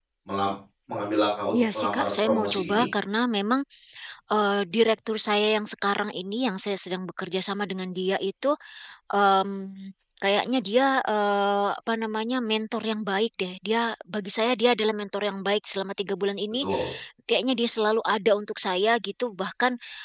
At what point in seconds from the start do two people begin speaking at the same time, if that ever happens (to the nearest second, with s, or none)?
2 s